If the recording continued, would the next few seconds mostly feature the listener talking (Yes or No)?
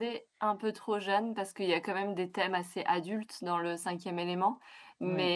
No